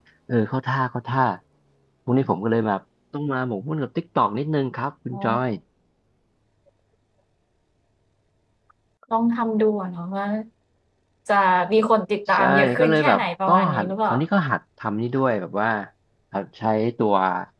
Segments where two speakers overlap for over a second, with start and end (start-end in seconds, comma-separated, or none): 12.3-14.1